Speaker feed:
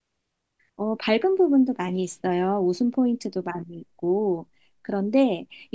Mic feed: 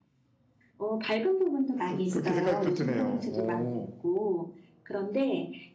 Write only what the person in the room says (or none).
또 그렇게 생각도 드네요. 어.